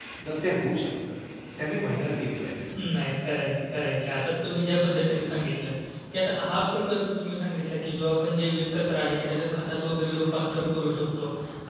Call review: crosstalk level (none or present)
none